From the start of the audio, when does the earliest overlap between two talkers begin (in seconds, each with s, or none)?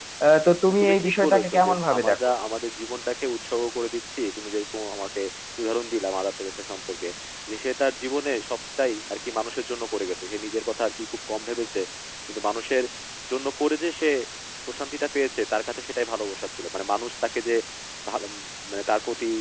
0.7 s